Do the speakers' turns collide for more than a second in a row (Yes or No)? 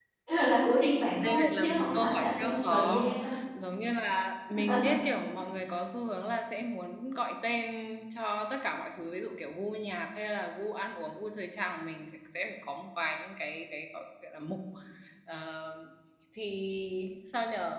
Yes